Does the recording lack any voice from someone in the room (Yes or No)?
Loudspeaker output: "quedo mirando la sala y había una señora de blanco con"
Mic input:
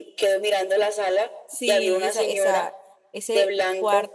No